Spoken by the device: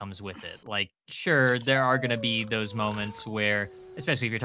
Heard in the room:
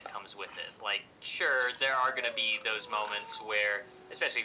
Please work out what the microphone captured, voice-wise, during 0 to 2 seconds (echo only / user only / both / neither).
echo only